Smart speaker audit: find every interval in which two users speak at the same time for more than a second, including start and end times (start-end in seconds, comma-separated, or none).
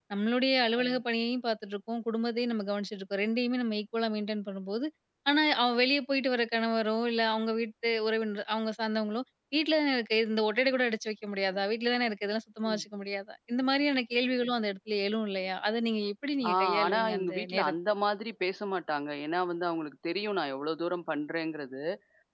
16.5-17.7